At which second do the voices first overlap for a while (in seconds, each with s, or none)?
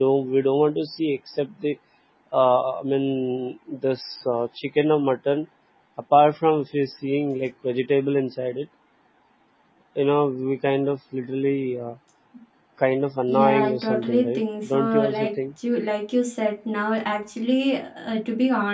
13.3 s